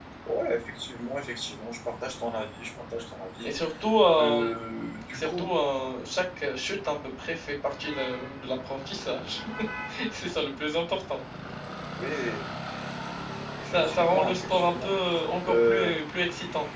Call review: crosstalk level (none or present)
present